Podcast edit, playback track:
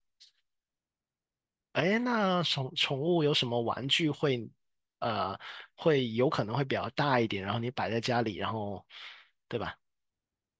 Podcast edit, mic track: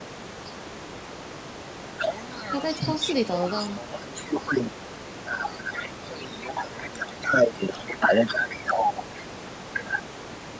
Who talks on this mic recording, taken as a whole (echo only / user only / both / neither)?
both